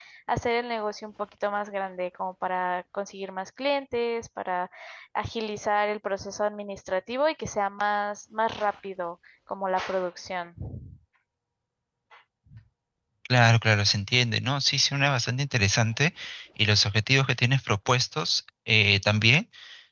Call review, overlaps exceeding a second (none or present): none